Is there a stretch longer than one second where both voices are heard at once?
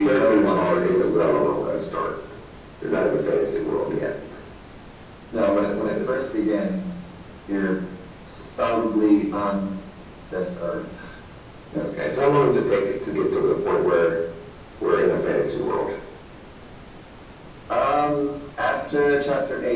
Yes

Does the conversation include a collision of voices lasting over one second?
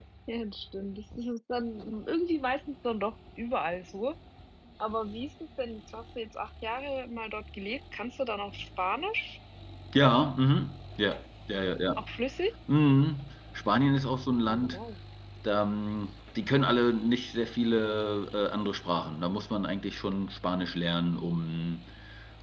No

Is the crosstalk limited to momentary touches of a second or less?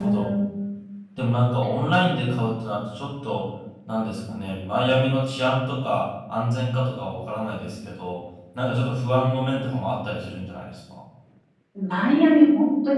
Yes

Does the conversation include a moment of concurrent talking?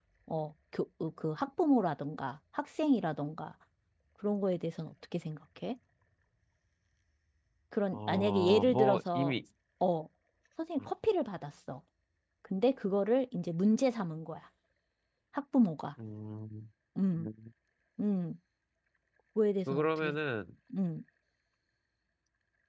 Yes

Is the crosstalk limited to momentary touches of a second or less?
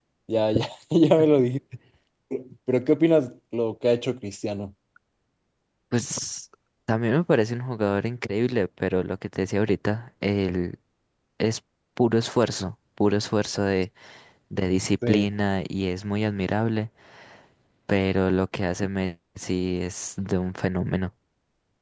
Yes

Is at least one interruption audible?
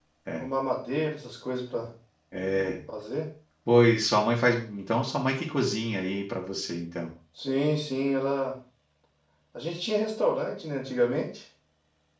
No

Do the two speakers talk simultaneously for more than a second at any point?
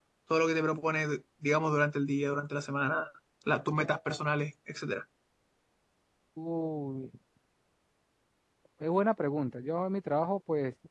No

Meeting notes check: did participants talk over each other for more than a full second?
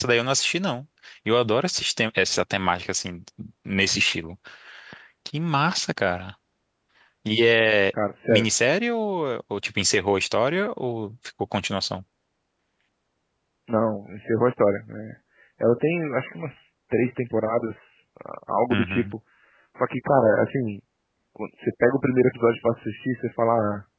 No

